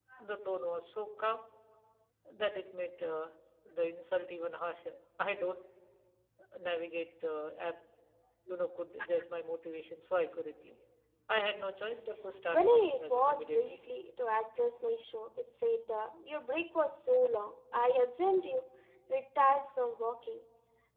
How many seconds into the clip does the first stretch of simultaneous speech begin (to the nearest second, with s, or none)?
12 s